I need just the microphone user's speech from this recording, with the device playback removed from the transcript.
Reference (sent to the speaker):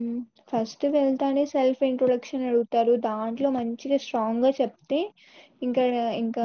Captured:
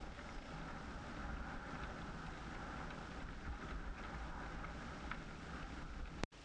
none

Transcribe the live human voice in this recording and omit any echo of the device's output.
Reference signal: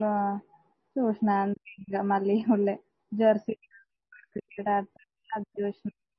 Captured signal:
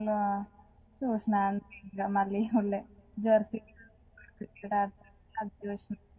none

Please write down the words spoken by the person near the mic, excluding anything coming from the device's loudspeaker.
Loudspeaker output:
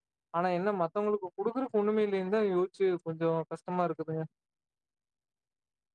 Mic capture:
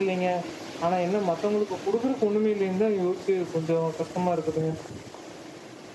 none

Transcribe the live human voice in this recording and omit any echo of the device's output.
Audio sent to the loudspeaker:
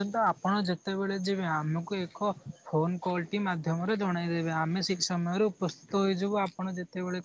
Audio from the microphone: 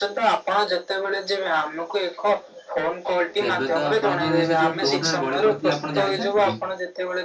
ତେବେ ତ ଆପଣଙ୍କର ସେ ଯୋଉ କୋଉଠାରେ ଗଳି ପଡ଼ିଥିଲା ଆପଣ ଜାଣିଛନ୍ତି କି?

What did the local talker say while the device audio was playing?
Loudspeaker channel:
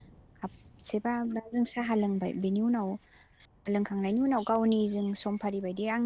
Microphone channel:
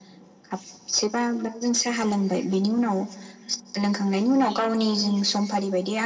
none

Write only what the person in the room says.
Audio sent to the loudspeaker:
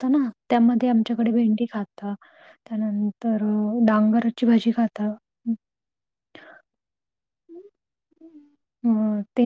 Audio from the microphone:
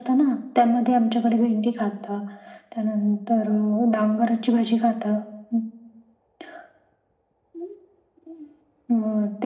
none

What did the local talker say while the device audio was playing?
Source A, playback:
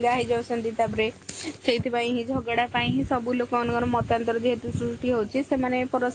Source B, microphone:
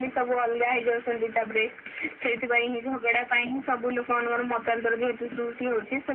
none

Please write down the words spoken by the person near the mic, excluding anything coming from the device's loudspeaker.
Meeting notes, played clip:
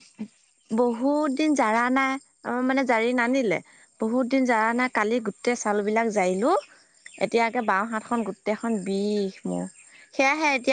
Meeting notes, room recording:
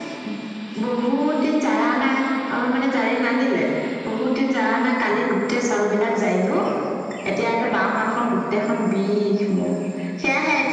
none

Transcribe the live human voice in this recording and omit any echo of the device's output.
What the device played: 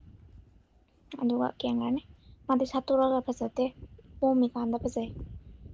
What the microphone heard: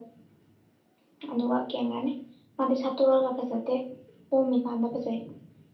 none

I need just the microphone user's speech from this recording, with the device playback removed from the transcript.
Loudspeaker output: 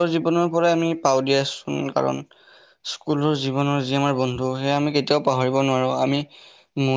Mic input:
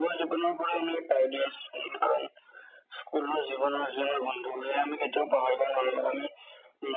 none

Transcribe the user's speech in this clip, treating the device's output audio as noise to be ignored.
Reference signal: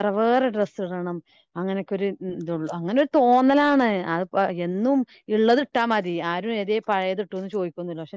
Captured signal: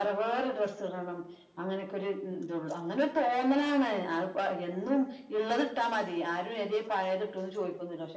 none

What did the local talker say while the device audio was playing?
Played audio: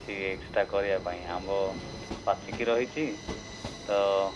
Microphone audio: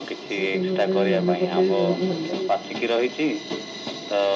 ସେ ଦିନ ଗୁଡା ମନେ ପଡିଲେ ବି ବହୁତ ଭଲ ଲାଗେ।

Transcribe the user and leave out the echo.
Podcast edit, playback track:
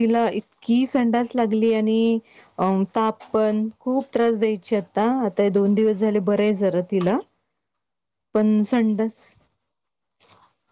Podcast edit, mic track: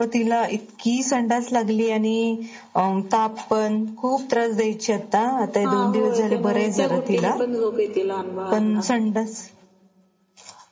हा होय त्या ना त्या गुट्टीनं पण झोप येते लहान बाहना

